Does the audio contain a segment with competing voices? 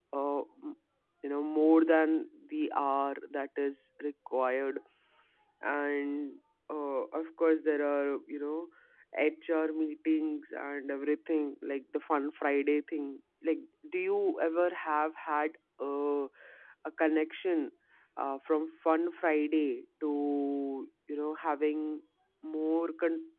No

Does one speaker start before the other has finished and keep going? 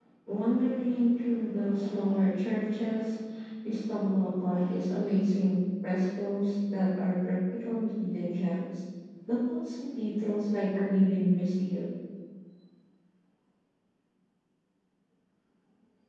No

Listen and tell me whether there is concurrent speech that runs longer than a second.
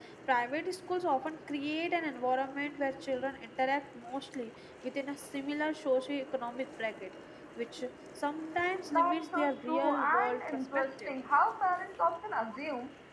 Yes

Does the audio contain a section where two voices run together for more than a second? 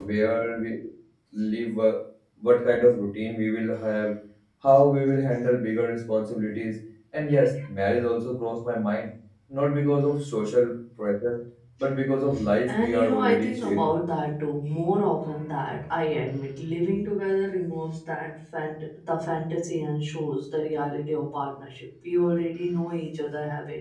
Yes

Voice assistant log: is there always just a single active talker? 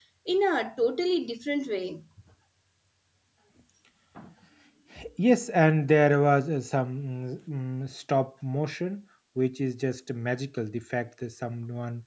Yes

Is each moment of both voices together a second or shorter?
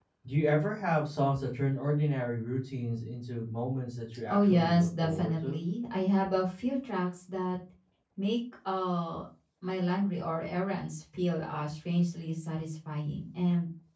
No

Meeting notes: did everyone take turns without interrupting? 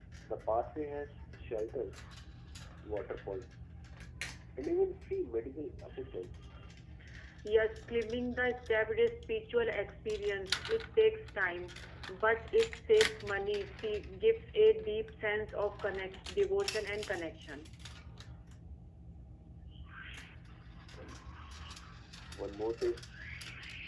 Yes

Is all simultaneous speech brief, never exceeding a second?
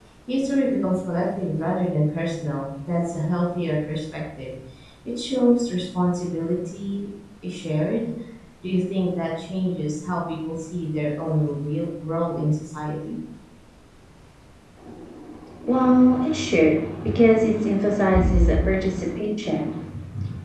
Yes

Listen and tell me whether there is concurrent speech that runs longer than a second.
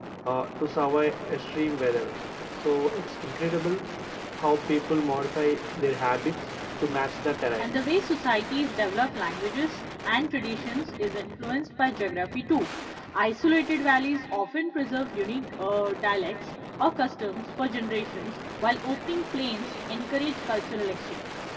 No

